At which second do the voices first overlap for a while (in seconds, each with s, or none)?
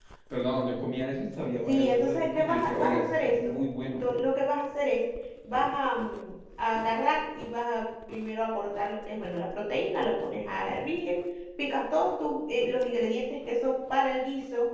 1.7 s